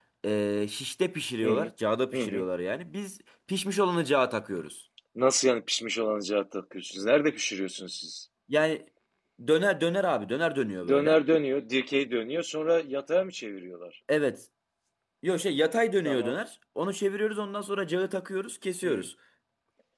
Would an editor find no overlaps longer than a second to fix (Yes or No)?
Yes